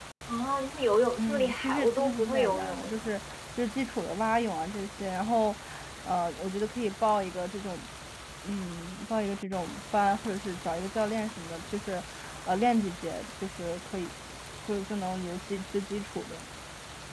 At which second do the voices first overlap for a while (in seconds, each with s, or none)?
1.2 s